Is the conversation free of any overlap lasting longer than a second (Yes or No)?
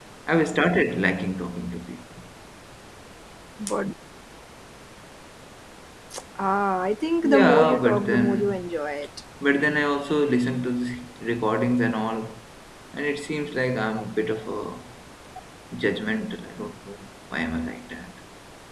No